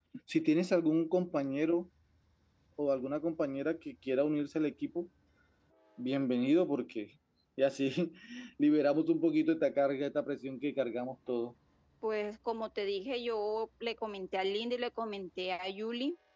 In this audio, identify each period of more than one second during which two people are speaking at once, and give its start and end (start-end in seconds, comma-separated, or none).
none